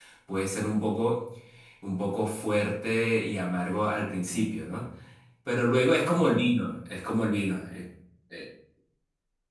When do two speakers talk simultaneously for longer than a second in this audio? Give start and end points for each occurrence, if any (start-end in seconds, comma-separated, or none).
none